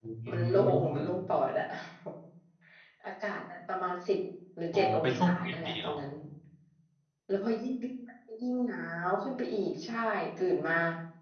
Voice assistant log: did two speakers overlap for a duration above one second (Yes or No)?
Yes